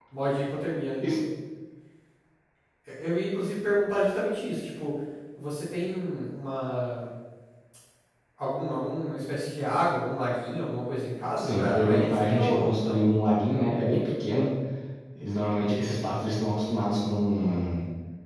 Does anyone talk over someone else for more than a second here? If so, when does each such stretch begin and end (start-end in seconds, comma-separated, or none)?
11.4-13.0